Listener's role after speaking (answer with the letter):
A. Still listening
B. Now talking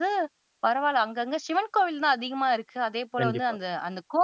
A